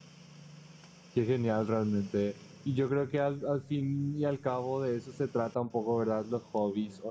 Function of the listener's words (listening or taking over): listening